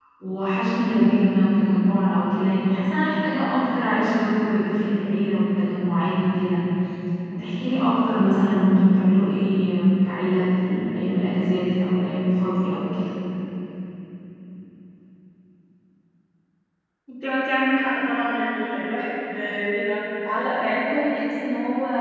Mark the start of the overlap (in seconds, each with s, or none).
none